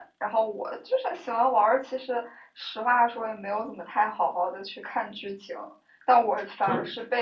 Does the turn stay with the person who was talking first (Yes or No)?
Yes